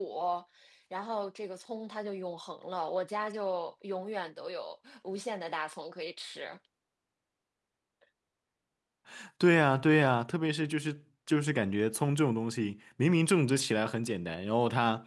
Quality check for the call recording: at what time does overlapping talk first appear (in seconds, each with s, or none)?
none